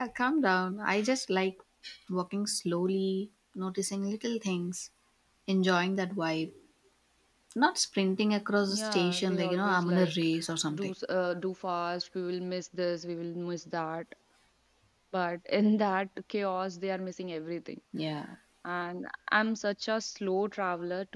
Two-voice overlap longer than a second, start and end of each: 8.7-10.1

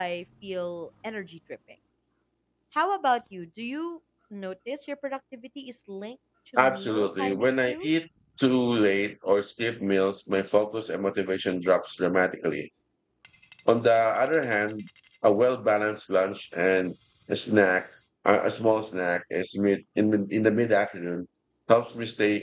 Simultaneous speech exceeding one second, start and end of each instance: 6.6-7.9

